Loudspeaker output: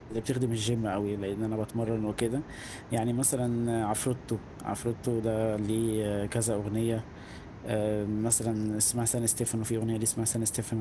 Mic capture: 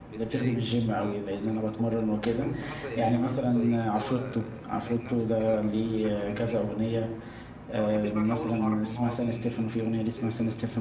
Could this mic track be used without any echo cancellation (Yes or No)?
No